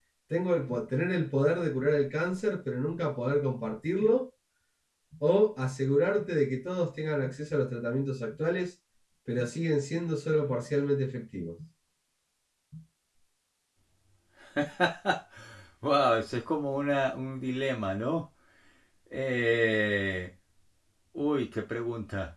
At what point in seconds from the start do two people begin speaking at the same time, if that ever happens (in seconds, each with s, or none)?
none